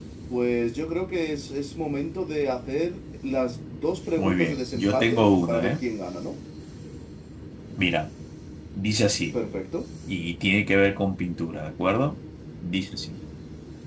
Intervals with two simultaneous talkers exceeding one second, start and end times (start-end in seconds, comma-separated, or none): 4.1-5.8